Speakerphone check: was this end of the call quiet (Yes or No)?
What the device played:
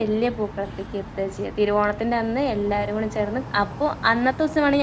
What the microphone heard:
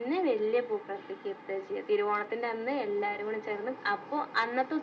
Yes